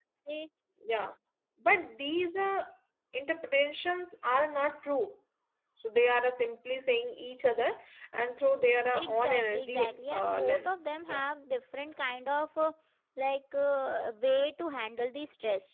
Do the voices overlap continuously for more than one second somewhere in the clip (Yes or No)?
Yes